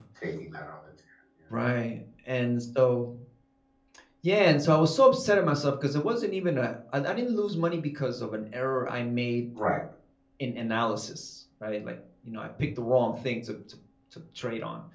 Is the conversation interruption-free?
Yes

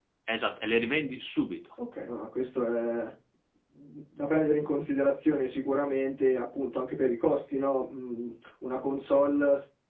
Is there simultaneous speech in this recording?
No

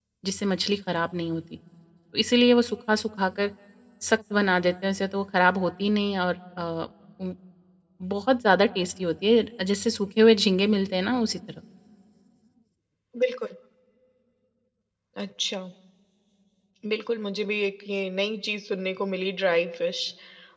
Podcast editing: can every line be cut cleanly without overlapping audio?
Yes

